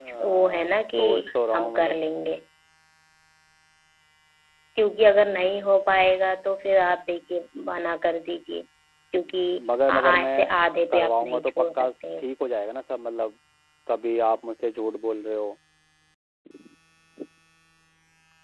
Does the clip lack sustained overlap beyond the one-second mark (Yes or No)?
No